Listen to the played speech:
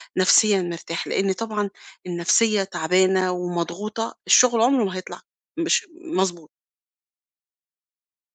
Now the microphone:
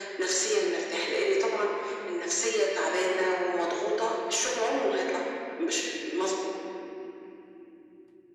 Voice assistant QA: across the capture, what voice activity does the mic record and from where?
echo only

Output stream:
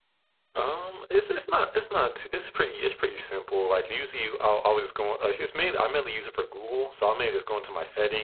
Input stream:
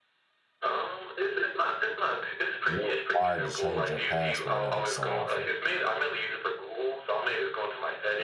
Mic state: both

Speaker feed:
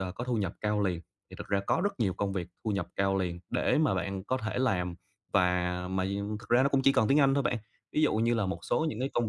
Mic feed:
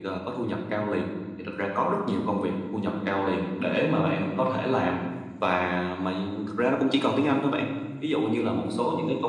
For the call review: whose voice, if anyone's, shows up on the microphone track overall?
echo only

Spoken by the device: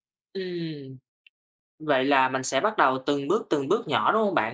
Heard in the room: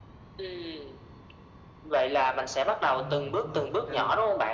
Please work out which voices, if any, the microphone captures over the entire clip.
both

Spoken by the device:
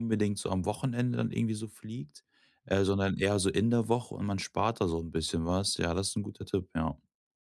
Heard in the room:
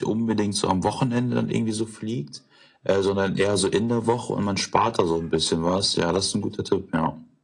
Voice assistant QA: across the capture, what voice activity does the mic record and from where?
echo only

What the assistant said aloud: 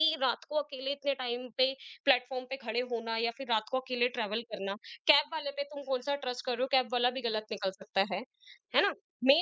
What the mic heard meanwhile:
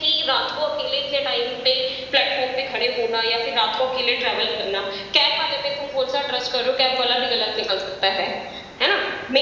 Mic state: echo only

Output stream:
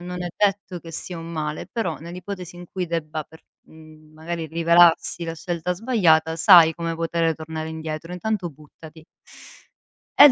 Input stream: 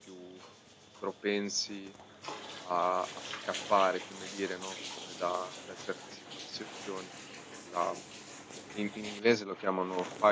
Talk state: user only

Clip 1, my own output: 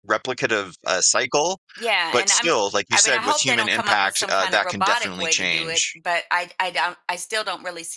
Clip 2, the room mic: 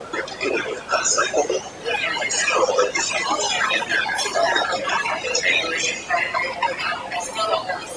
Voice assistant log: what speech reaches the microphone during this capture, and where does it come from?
echo only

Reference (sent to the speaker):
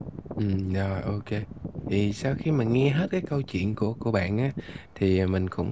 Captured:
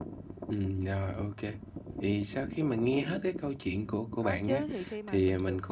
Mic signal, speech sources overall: both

